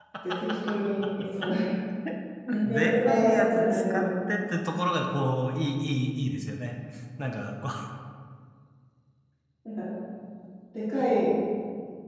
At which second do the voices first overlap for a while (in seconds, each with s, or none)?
2.7 s